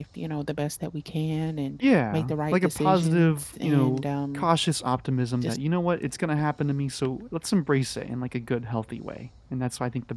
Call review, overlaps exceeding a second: present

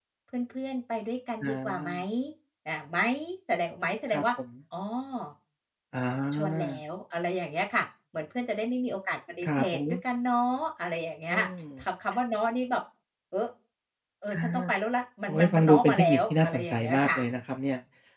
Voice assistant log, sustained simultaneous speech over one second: present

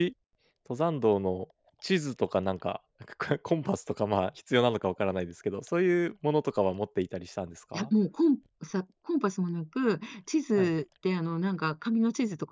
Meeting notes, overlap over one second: none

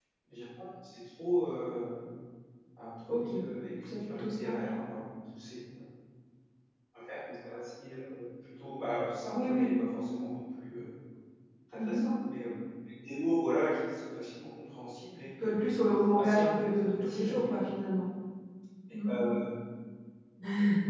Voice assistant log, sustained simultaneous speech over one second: present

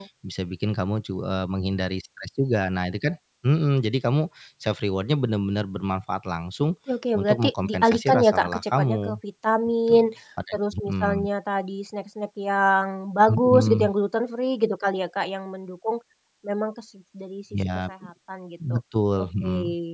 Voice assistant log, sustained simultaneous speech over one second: present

